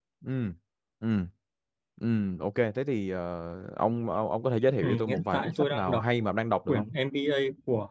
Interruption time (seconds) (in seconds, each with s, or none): 4.8 s